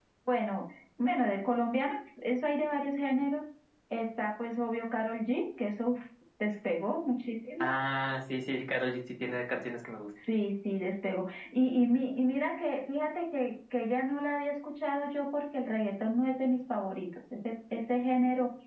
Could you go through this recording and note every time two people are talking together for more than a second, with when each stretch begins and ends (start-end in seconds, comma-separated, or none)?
none